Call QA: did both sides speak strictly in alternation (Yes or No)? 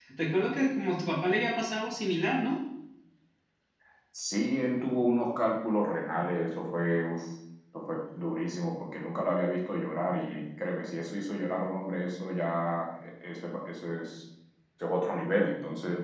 Yes